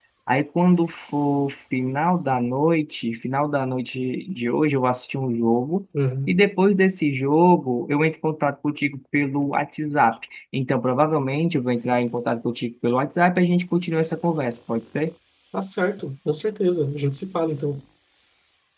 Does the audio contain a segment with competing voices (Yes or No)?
No